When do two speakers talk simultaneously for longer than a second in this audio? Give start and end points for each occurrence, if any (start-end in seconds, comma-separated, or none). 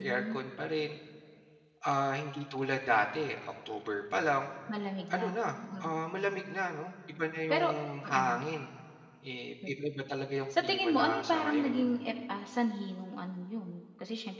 10.6-11.9